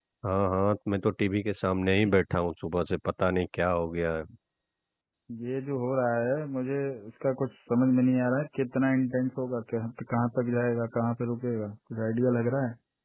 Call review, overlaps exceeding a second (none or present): none